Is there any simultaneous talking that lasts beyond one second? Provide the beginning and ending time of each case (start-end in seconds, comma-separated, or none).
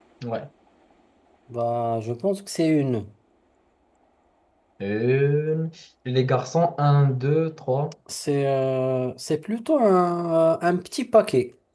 none